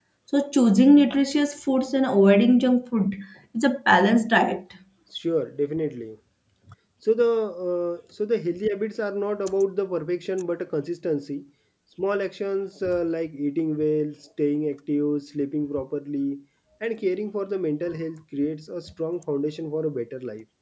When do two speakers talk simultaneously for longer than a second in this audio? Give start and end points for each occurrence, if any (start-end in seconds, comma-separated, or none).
none